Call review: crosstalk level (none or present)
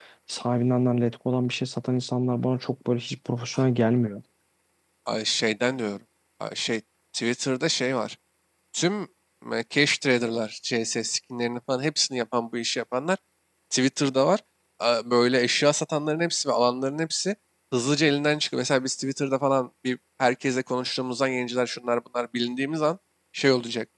none